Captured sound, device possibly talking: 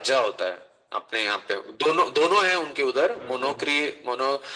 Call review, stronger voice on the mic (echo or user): echo